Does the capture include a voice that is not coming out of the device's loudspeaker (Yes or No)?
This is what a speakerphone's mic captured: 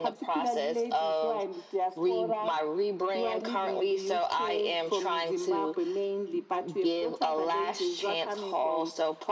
No